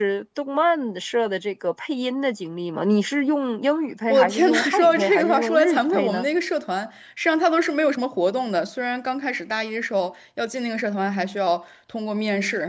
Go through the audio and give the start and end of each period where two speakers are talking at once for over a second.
4.1-6.3

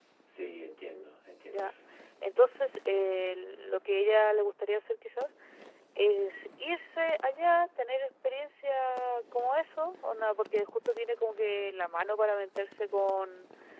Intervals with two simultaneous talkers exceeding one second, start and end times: none

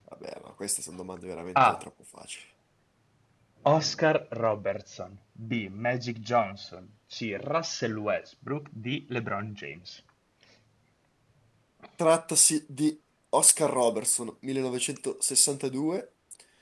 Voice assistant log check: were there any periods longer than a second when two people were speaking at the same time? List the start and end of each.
none

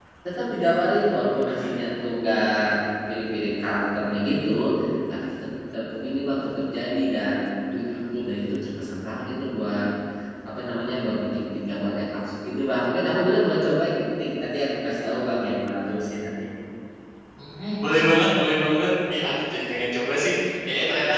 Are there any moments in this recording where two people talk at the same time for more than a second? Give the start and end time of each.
none

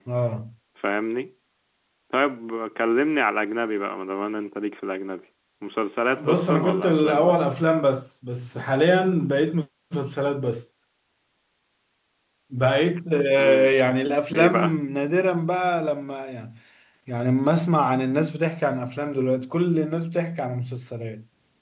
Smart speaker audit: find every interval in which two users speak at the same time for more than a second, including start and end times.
6.1-7.5

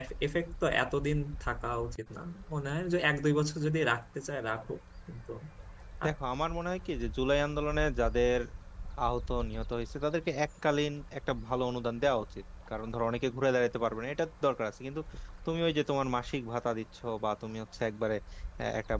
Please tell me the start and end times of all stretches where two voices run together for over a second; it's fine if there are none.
none

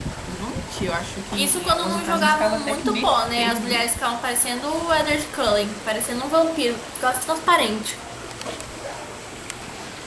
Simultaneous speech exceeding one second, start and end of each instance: 1.4-3.9

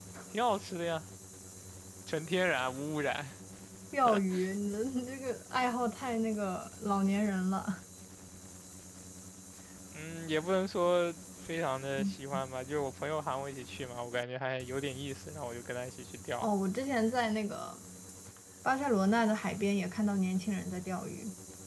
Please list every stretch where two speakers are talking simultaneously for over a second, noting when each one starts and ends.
none

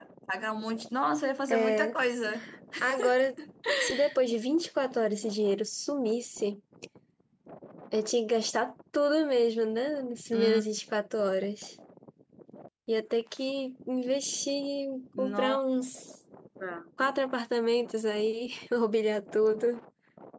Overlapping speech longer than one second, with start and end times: none

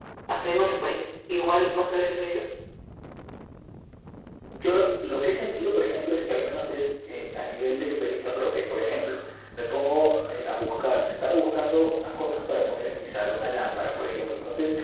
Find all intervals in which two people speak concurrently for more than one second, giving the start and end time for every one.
none

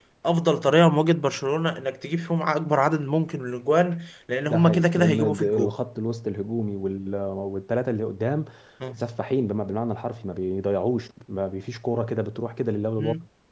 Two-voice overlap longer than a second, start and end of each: 4.5-5.7

